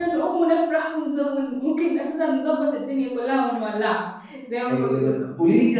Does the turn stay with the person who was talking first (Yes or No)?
No